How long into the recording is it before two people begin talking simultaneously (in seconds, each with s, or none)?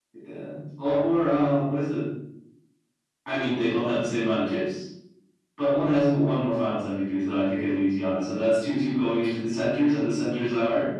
none